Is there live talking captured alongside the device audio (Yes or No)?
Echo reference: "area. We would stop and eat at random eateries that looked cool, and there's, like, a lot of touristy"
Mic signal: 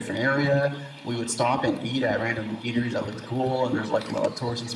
No